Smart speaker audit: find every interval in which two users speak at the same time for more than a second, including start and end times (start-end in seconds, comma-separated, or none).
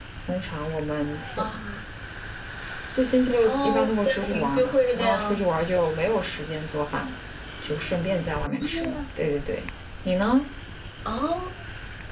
3.4-5.4